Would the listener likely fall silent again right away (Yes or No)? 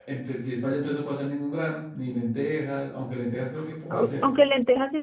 No